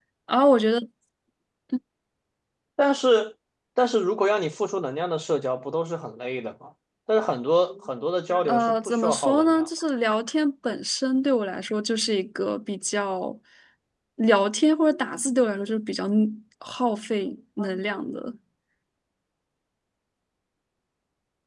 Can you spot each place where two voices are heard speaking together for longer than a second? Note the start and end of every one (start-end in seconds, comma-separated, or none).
8.5-9.7